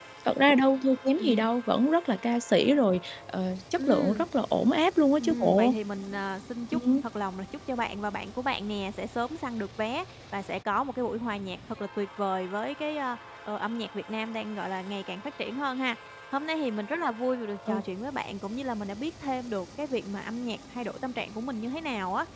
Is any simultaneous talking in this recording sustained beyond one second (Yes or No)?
No